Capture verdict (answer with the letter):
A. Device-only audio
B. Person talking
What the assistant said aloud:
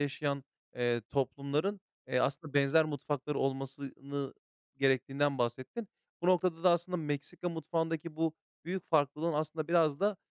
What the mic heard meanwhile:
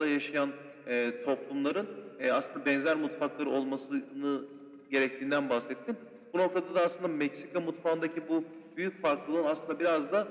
A